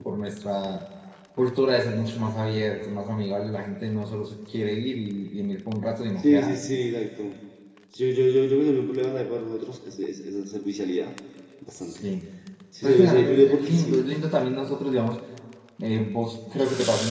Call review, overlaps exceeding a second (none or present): present